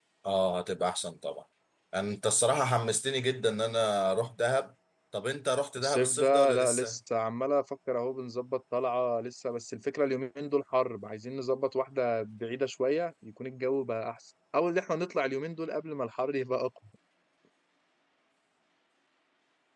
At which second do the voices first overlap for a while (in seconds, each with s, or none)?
5.8 s